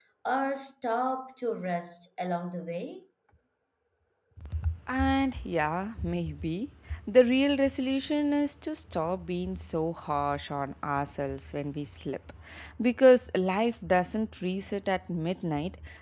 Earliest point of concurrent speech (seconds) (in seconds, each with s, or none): none